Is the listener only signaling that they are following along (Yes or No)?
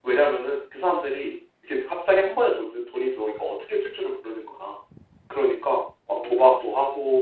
Yes